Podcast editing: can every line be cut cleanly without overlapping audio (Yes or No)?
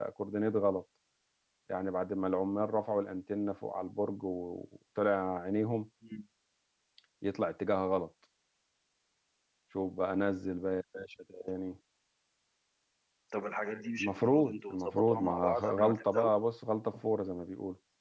No